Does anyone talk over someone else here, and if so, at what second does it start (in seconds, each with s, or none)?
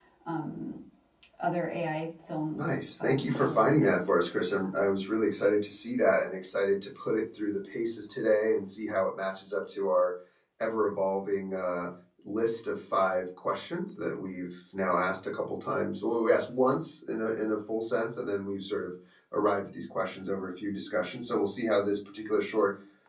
2.5 s